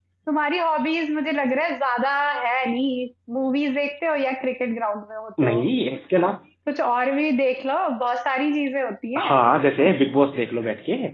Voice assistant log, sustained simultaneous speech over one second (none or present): none